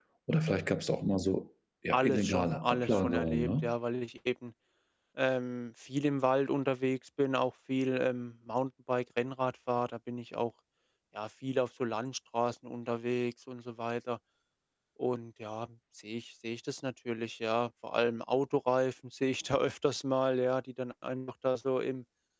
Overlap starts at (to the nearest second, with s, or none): 2 s